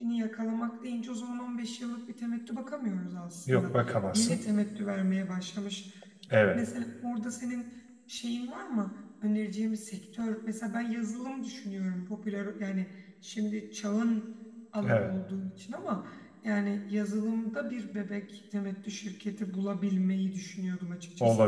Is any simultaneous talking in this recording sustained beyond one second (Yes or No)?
No